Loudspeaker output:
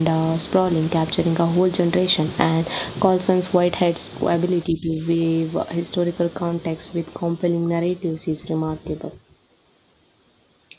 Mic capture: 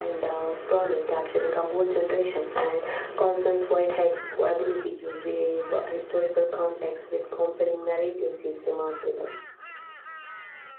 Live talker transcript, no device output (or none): none